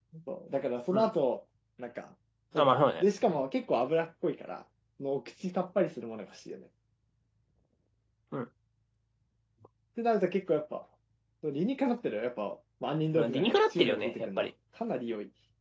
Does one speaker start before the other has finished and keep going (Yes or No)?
Yes